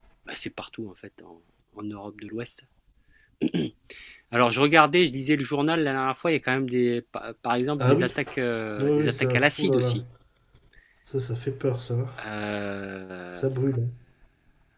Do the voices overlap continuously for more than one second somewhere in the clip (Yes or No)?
Yes